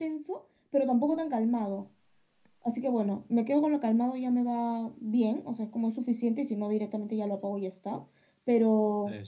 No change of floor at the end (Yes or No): Yes